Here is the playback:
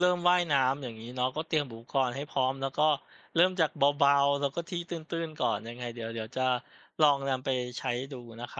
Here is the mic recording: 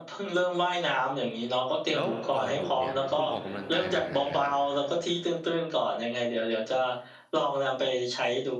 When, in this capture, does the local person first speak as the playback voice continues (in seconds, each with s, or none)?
1.9 s